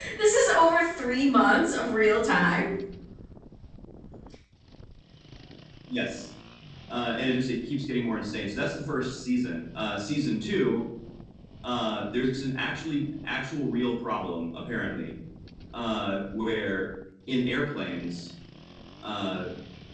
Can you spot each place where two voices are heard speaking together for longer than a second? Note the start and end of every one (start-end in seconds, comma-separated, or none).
none